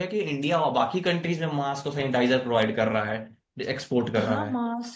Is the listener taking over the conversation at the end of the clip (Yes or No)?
Yes